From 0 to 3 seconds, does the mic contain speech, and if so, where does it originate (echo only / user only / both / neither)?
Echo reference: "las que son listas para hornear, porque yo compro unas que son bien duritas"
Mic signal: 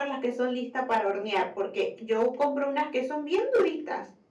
echo only